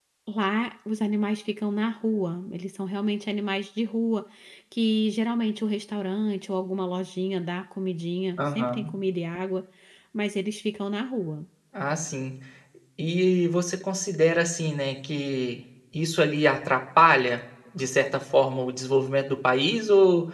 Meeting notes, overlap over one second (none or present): none